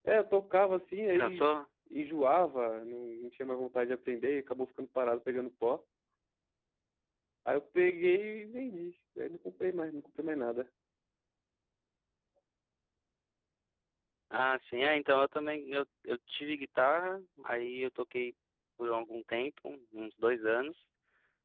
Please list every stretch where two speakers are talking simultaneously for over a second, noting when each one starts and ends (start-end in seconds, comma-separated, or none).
none